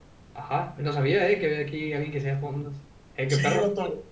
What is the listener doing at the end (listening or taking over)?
taking over